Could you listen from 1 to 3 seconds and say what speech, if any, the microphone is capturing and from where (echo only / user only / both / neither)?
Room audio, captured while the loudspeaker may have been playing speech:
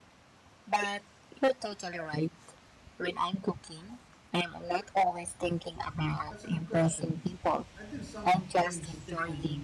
echo only